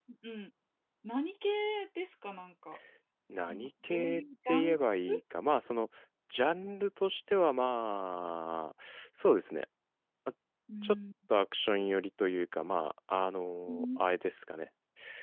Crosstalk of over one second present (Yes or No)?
Yes